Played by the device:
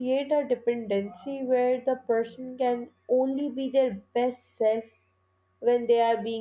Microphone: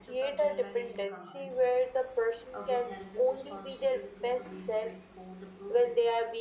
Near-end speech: present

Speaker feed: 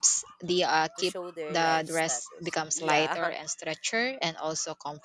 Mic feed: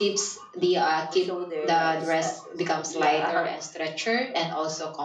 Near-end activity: none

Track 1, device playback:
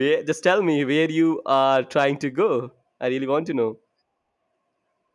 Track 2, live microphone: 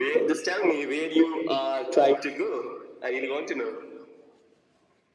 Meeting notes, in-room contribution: none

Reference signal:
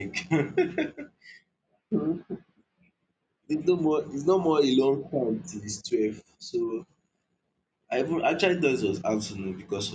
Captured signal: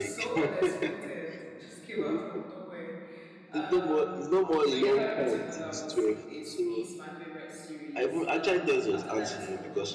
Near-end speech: present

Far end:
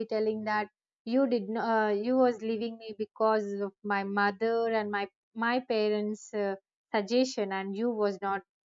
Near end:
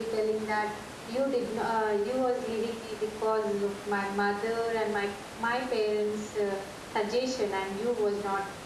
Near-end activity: none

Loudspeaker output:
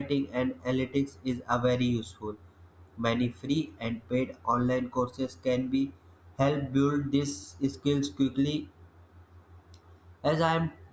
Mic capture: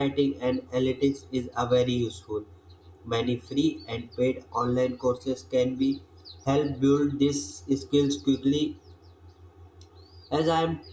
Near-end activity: none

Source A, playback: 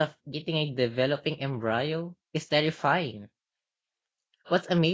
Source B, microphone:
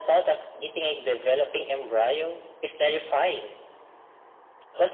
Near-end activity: none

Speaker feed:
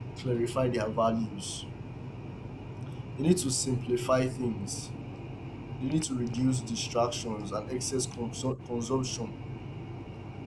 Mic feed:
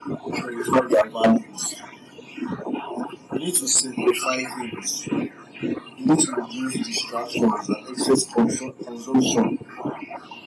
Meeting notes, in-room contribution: none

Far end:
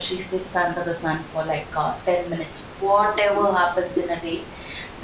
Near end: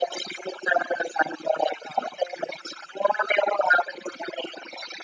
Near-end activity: none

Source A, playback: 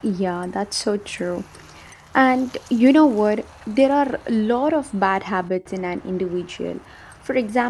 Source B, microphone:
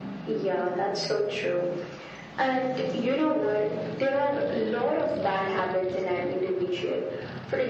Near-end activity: none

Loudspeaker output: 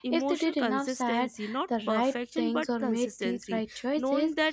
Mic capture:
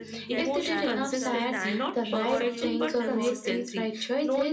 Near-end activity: present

